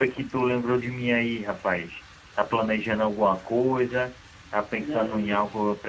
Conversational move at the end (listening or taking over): listening